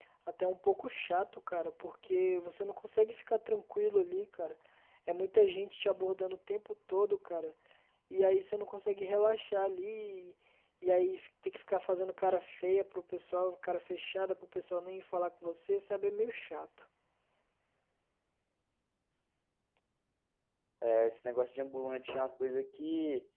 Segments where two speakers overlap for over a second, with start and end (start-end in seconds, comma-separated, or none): none